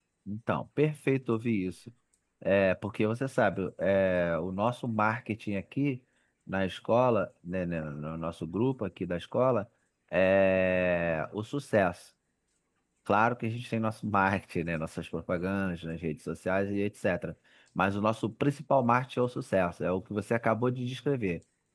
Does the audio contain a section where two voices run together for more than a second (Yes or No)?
No